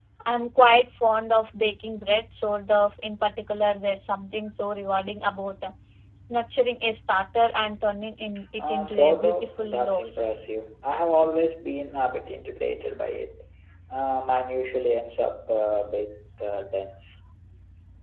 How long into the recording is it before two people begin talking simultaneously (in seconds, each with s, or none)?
8.6 s